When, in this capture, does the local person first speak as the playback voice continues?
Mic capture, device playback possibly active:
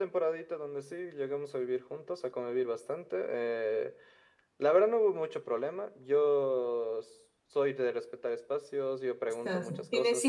9.3 s

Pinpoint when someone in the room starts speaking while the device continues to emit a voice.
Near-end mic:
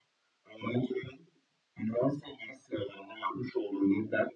none

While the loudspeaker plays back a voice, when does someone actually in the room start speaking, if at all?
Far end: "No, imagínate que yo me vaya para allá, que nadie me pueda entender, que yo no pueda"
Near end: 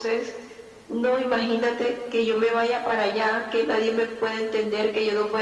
none

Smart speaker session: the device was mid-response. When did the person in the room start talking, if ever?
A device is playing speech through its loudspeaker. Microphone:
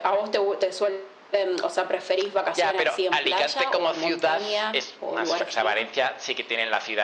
none

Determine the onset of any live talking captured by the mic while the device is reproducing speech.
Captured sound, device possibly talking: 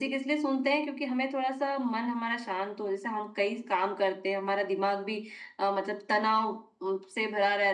none

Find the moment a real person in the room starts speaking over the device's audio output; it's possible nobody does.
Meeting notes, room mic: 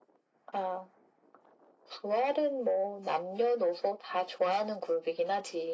none

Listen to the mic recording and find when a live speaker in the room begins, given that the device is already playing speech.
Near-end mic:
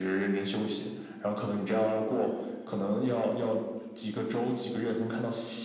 none

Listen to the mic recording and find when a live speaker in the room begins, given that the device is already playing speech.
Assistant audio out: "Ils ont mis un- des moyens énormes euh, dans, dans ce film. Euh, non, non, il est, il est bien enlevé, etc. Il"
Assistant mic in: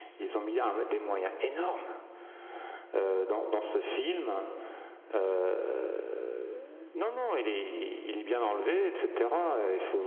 none

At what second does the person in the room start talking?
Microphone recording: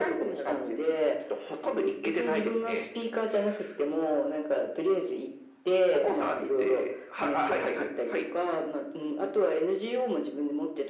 none

